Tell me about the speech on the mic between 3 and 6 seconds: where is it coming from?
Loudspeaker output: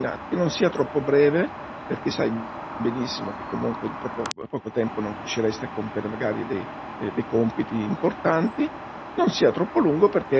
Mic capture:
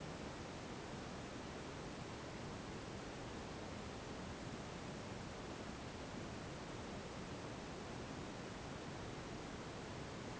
neither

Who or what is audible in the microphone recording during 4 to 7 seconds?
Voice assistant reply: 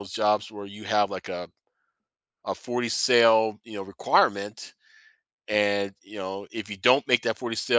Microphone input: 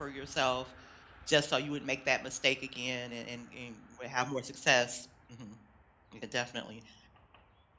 user only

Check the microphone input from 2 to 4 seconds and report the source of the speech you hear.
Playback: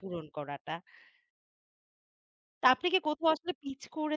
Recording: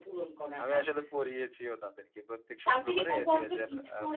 both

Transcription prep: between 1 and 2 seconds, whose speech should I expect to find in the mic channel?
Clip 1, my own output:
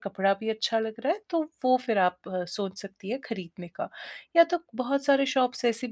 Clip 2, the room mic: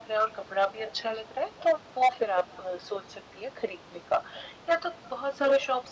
echo only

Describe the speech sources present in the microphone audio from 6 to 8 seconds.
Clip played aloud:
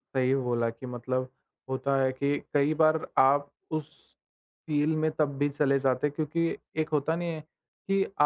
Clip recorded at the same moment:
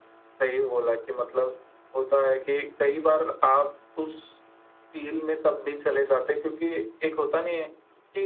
echo only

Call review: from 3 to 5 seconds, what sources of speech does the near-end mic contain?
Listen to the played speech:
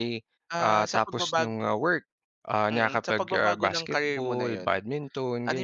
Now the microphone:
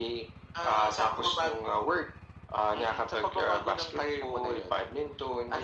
echo only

